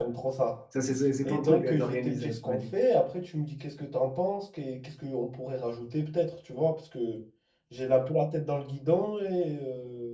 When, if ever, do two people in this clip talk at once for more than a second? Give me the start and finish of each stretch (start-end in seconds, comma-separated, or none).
1.2-2.7